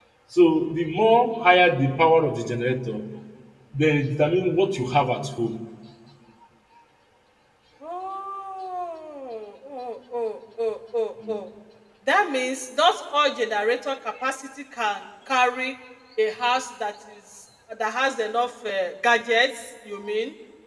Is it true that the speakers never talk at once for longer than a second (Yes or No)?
Yes